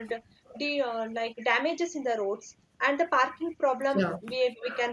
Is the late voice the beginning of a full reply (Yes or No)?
No